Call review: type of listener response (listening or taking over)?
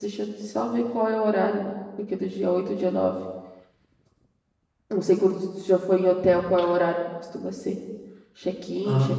taking over